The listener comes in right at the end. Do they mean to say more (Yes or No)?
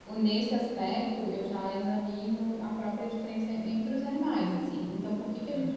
No